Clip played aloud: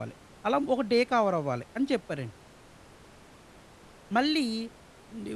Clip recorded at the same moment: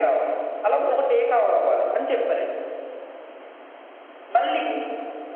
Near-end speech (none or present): none